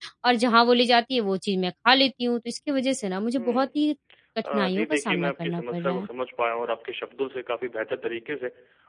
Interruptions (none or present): present